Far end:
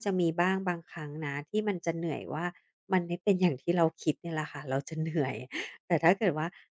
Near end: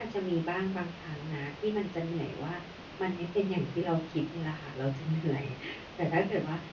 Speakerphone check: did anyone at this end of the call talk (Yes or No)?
No